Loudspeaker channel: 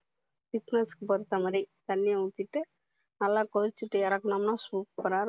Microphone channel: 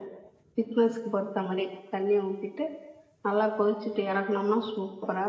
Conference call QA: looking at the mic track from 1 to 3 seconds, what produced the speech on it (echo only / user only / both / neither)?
echo only